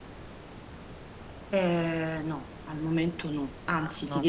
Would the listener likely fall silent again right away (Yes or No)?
Yes